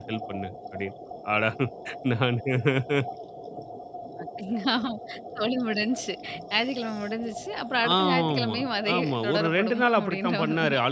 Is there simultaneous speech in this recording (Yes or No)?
Yes